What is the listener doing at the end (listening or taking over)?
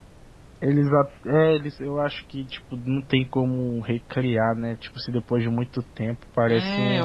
taking over